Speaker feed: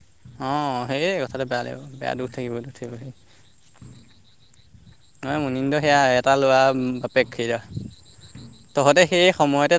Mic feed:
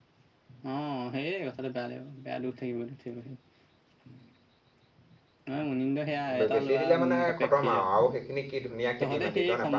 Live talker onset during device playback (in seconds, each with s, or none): 6.4 s